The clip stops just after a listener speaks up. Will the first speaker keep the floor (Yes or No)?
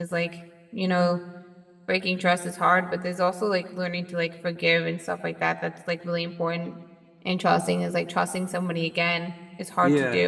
No